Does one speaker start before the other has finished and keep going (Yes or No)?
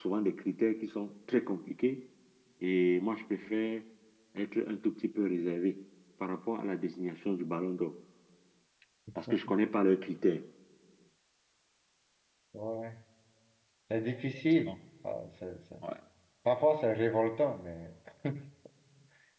No